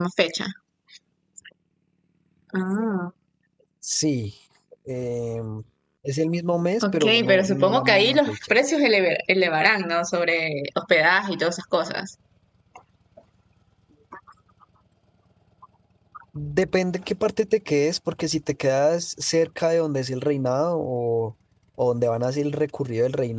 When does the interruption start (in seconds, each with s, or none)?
6.8 s